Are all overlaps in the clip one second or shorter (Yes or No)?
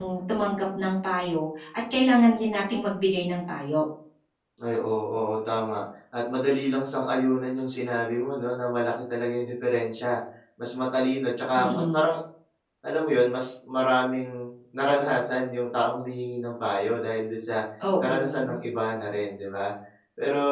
Yes